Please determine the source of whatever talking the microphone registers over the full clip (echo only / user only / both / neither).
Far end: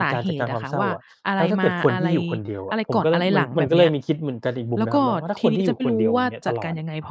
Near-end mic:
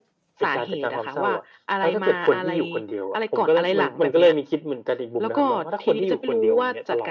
echo only